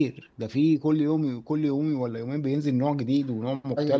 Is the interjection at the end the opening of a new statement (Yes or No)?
Yes